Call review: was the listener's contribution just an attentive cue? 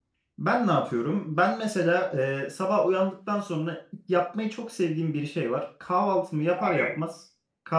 Yes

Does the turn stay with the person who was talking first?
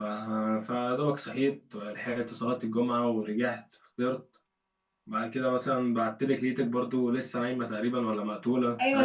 No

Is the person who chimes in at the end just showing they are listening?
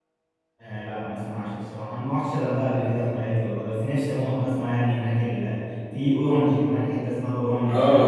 No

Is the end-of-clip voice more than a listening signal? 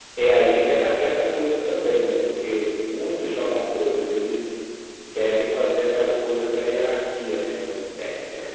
No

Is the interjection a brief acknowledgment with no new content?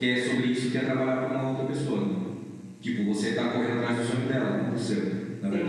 No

